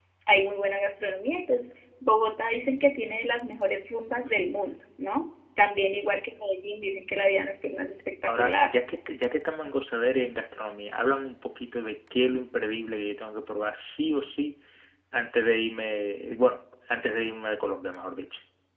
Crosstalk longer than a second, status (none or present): none